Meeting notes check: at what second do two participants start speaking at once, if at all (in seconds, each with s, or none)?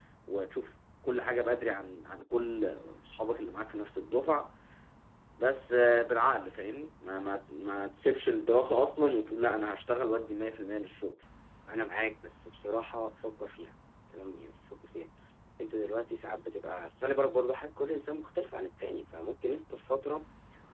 none